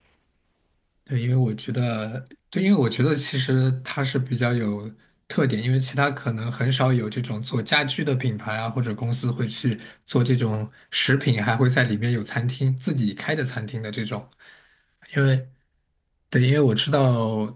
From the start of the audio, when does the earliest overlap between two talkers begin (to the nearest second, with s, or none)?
none